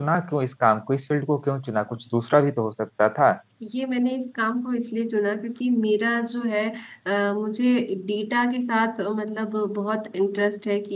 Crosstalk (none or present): none